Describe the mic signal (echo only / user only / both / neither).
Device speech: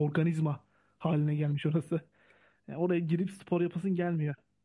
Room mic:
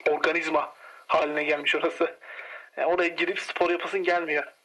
echo only